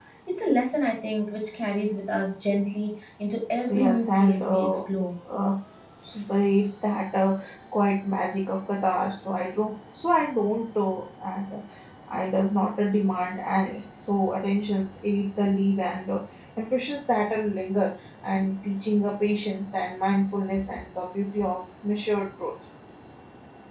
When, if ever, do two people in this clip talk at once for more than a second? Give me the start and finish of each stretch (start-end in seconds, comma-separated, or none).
3.5-4.8